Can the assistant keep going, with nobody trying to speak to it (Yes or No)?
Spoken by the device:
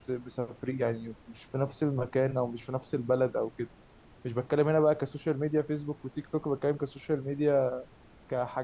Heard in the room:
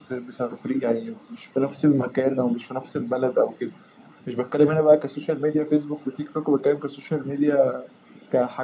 Yes